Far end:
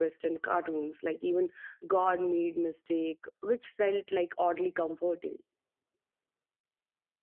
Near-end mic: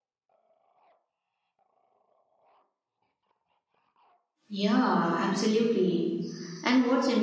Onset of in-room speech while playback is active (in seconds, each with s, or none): 4.5 s